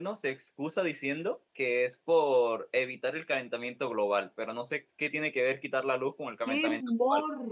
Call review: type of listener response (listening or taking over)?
taking over